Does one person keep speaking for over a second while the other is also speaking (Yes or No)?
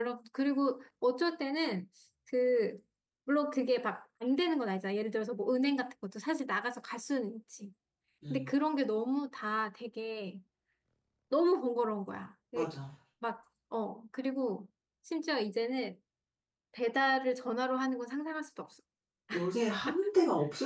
No